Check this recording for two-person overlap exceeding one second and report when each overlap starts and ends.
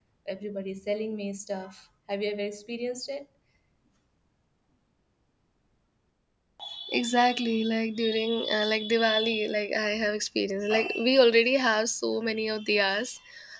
none

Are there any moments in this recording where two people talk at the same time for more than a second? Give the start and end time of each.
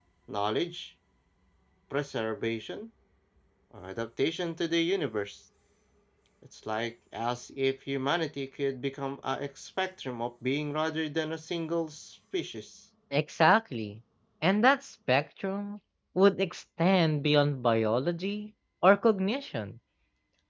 none

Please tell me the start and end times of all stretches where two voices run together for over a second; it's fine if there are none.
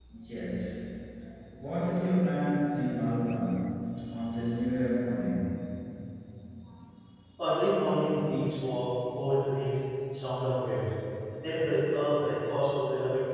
none

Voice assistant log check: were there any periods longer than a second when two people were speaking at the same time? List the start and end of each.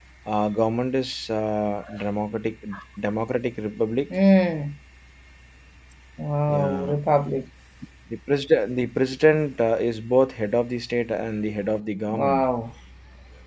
none

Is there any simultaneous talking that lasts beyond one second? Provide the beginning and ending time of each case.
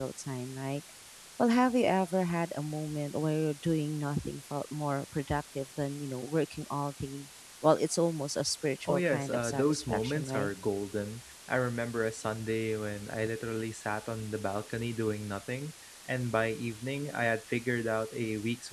8.8-10.5

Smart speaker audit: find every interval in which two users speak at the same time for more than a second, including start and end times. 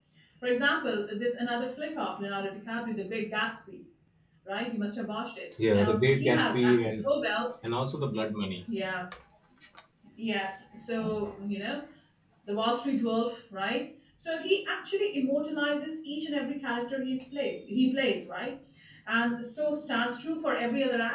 5.7-7.1

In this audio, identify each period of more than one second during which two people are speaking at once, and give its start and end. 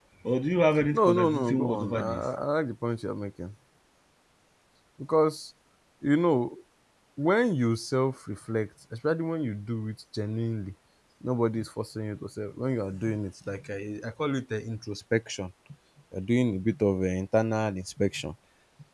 0.9-2.2

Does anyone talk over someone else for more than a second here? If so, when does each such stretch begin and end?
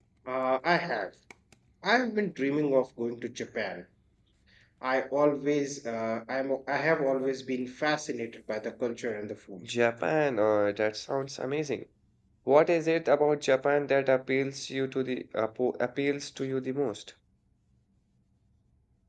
none

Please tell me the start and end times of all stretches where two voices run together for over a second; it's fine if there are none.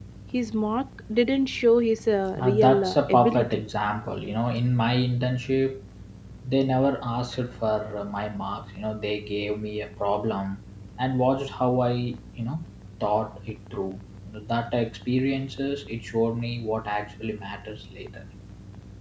2.4-3.6

